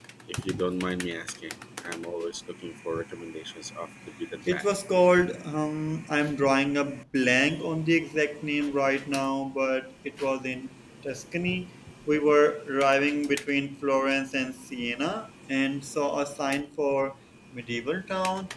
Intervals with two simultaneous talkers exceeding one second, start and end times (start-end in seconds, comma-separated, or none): none